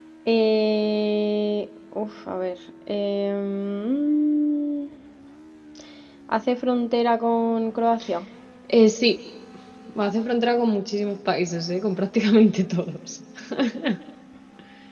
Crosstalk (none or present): none